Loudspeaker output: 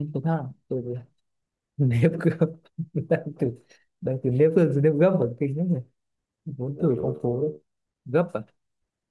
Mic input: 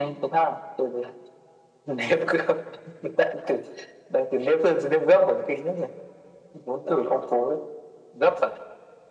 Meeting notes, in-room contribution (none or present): none